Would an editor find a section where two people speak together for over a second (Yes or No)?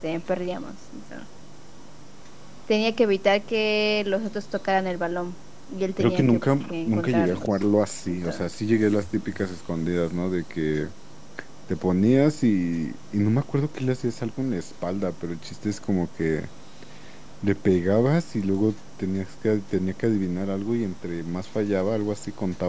Yes